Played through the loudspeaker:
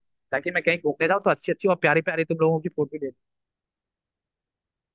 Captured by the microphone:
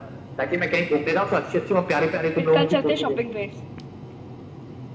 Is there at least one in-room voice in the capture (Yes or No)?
Yes